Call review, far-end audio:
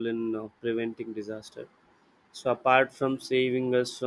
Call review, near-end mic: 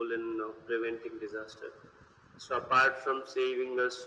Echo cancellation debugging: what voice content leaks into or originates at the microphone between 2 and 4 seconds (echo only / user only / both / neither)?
echo only